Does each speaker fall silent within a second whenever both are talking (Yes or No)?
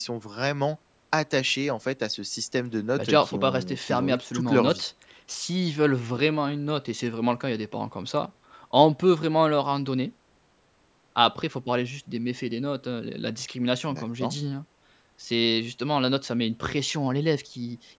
No